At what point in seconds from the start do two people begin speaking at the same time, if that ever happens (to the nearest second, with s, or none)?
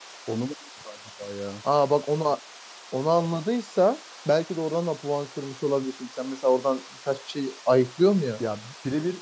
none